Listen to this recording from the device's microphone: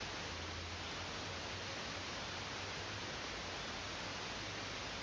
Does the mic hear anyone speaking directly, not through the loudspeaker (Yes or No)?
No